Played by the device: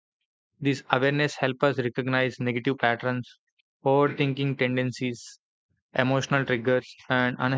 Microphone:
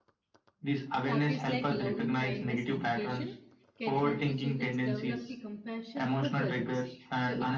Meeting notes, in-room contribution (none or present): present